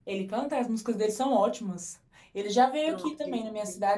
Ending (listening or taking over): listening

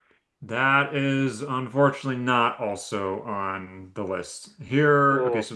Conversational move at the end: listening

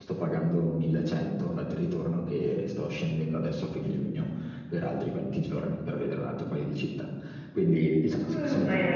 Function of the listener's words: taking over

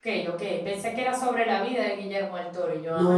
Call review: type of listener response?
taking over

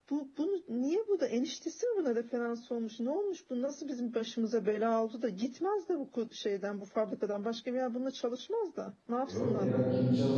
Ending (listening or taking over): taking over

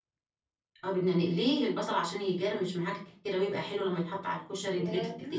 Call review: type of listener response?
taking over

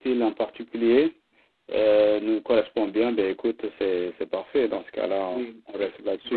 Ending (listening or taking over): taking over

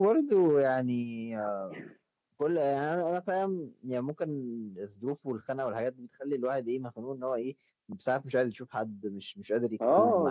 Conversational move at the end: taking over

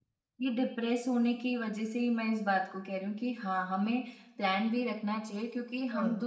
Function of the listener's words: listening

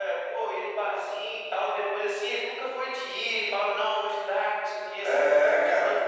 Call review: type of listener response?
taking over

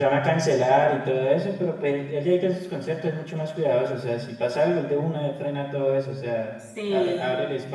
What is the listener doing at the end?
listening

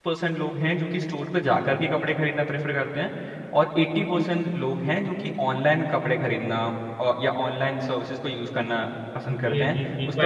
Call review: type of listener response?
taking over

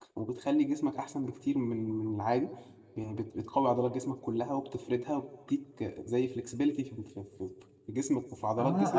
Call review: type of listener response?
taking over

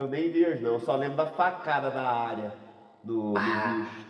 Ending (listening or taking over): listening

